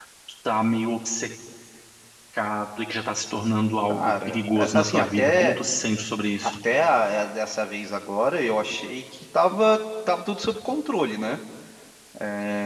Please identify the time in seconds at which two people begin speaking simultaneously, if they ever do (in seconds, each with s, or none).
3.9 s